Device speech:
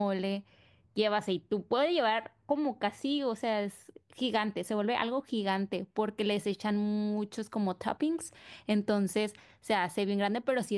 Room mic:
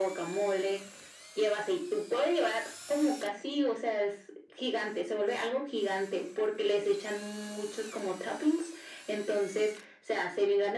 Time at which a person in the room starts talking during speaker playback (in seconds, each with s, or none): none